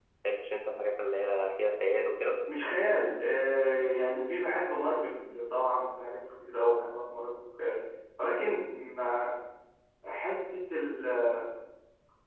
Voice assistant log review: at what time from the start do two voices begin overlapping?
none

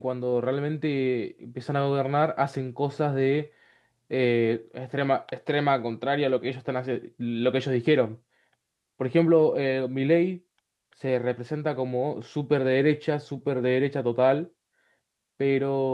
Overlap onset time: none

